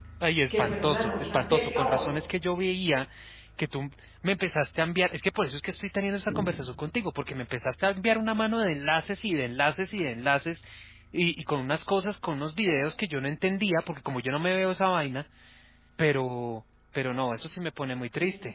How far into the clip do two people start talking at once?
0.5 s

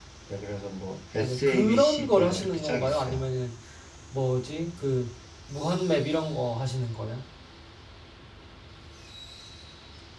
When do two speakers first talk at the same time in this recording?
1.1 s

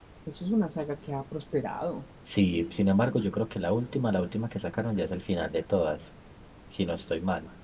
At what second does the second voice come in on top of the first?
none

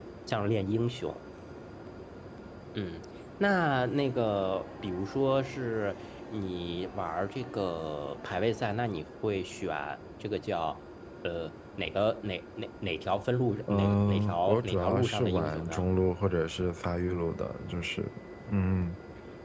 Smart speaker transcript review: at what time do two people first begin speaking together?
13.7 s

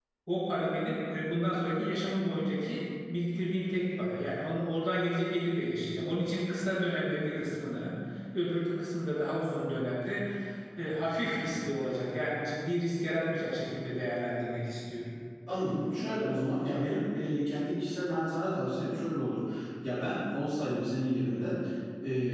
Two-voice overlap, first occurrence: none

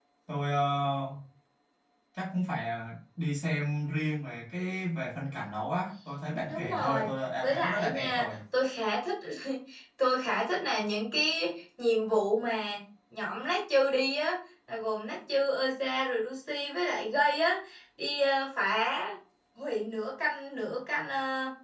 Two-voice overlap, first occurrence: 6.5 s

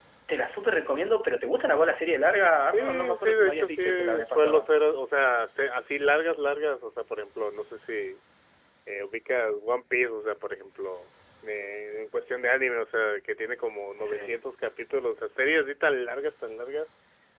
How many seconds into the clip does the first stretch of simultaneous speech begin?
2.7 s

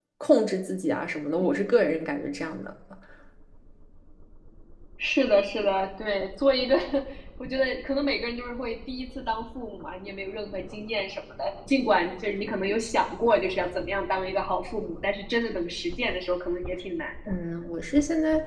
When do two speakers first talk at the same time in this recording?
none

